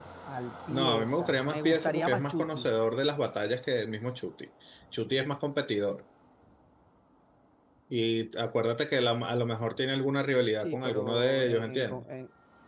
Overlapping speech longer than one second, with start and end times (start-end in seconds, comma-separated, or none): 0.7-2.7, 10.6-12.1